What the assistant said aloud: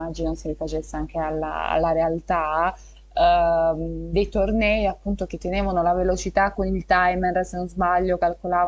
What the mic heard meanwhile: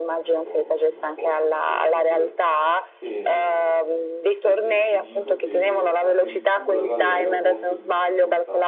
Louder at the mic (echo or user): echo